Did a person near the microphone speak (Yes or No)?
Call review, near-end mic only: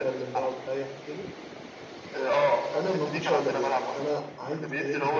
Yes